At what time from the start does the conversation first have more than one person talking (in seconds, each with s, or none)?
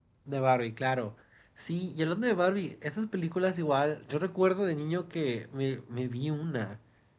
none